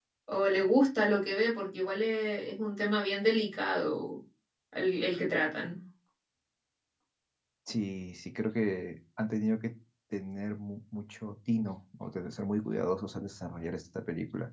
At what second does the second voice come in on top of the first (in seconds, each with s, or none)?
none